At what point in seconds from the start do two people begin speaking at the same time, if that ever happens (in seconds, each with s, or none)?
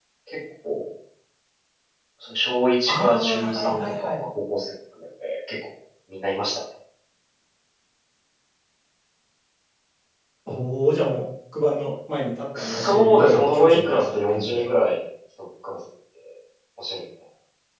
2.9 s